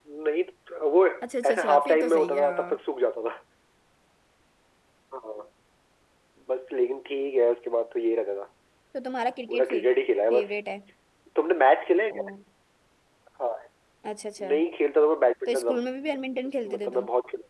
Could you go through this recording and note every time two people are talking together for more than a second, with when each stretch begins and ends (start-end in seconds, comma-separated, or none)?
1.5-2.8